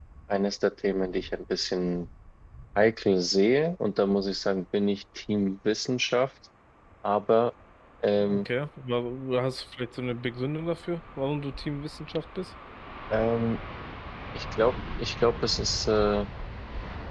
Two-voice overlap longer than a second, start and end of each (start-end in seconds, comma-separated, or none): none